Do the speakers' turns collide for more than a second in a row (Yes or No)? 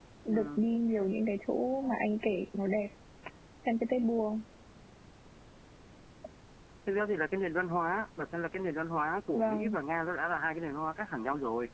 No